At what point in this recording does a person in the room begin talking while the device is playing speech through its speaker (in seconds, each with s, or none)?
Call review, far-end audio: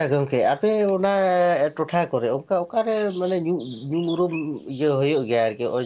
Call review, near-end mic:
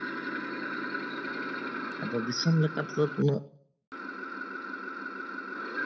2.0 s